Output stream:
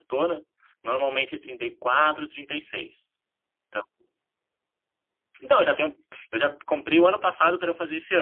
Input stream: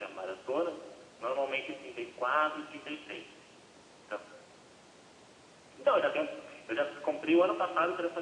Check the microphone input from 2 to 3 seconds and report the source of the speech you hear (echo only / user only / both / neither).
echo only